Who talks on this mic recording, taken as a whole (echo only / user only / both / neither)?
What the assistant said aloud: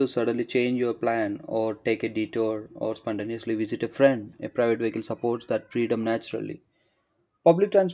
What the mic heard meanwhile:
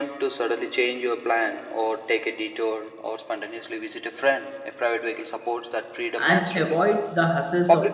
both